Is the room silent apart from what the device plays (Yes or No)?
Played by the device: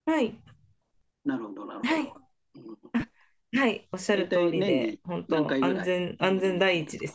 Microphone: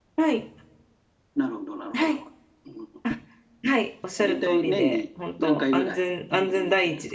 No